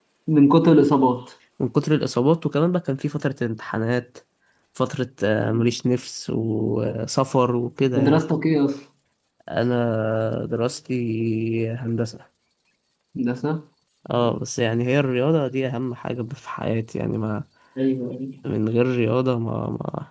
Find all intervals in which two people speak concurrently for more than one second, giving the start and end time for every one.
none

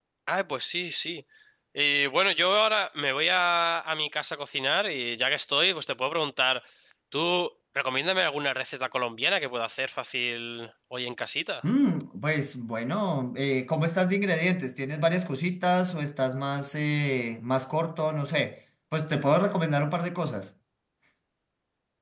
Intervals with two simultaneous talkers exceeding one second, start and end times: none

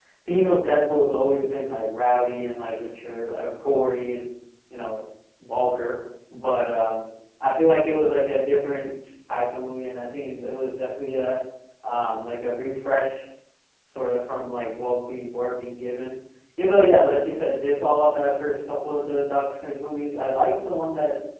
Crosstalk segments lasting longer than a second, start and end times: none

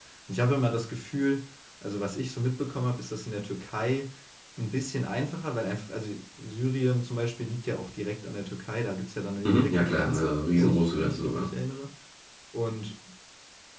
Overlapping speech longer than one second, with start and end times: 9.4-11.5

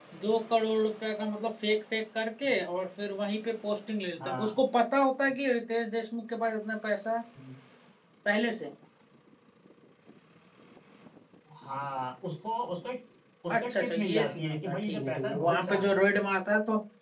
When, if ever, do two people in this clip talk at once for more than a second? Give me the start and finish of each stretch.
13.7-16.0

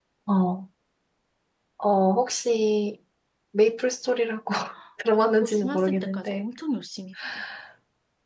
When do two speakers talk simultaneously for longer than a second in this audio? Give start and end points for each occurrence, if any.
5.1-6.5

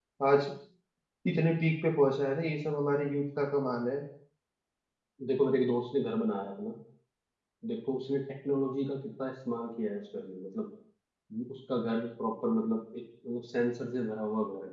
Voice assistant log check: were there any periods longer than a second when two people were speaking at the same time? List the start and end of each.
none

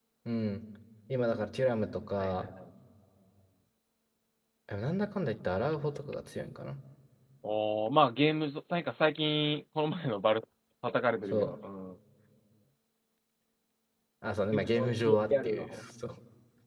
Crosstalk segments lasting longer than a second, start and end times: 14.5-15.8

